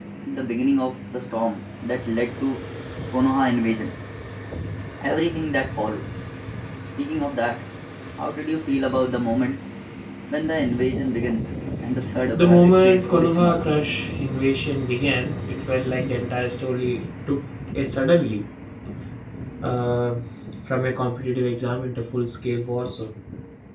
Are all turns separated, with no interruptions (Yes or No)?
No